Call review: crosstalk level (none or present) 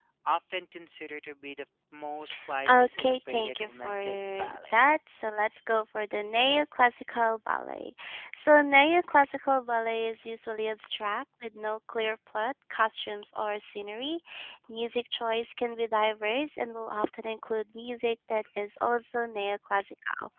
present